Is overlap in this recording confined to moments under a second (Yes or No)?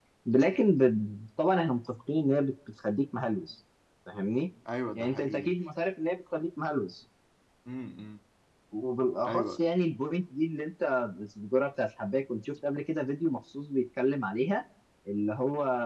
Yes